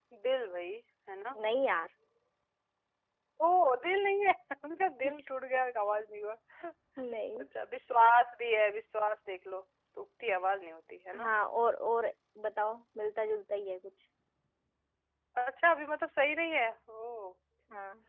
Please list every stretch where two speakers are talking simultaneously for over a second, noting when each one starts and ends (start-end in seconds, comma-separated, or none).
none